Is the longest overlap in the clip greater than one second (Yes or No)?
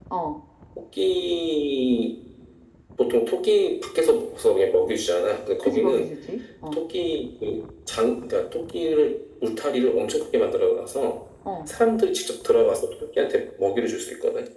No